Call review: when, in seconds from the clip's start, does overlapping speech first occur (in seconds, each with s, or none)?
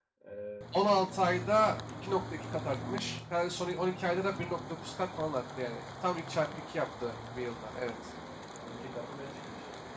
none